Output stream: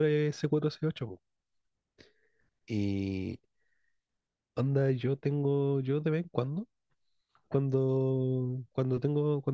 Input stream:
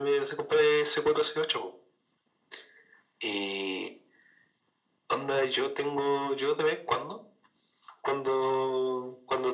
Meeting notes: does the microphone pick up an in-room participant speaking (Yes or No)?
No